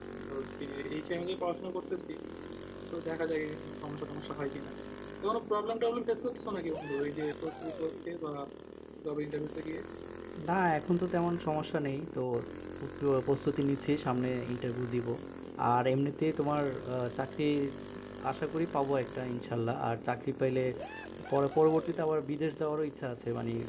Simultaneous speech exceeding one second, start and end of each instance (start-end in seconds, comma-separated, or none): none